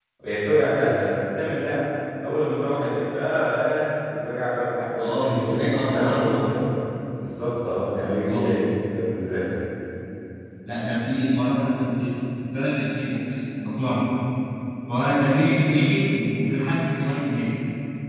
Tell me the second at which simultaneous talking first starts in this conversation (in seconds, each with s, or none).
5.0 s